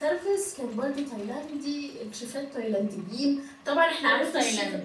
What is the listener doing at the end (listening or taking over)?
listening